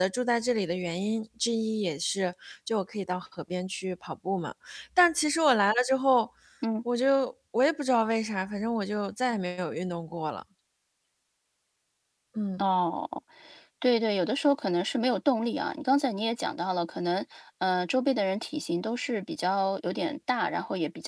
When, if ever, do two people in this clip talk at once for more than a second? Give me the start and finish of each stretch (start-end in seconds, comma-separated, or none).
none